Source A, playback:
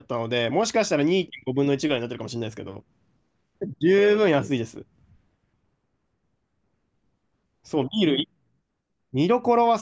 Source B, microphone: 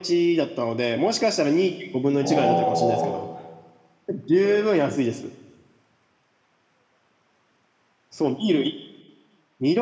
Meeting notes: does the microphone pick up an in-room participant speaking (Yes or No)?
Yes